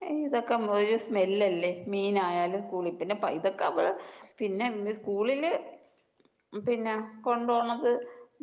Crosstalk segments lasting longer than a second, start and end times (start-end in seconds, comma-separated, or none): none